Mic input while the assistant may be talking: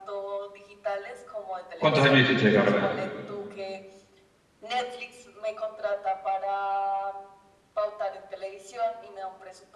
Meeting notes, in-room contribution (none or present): present